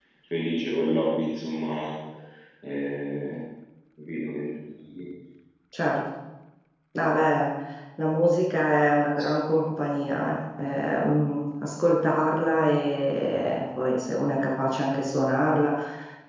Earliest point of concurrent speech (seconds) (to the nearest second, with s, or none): none